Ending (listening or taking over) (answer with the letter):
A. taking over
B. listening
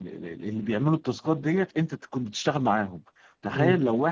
B